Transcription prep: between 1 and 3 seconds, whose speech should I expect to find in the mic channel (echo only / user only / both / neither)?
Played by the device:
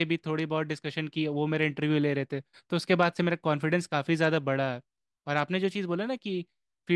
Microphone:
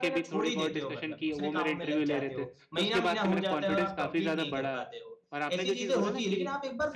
both